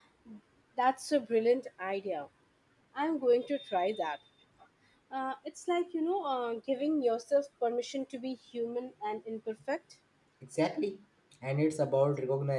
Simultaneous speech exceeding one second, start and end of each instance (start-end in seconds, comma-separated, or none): none